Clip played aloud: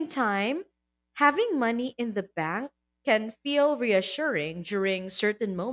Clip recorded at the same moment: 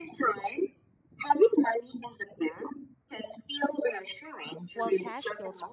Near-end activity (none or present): present